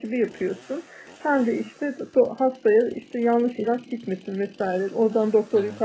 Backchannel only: Yes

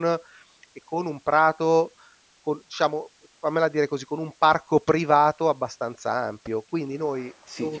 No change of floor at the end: No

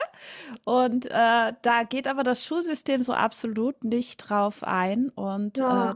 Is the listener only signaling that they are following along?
No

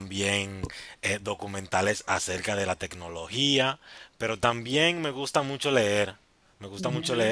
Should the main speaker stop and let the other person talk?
No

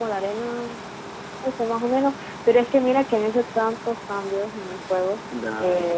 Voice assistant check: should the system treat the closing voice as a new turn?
No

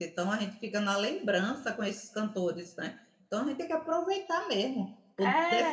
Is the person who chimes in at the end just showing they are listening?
Yes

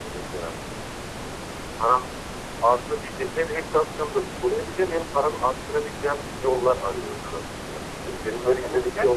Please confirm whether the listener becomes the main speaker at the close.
Yes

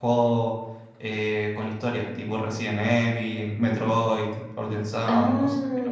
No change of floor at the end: No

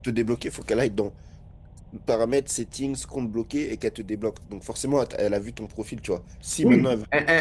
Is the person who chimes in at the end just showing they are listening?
No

